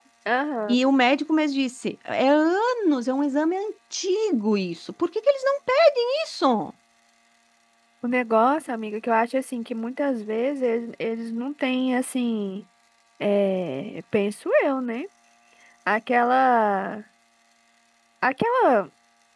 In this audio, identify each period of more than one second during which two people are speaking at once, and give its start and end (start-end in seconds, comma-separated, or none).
none